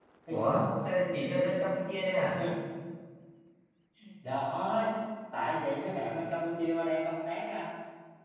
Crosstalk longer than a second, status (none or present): none